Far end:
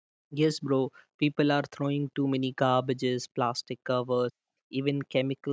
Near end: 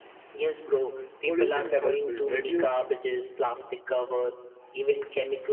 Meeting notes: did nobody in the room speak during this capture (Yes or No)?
No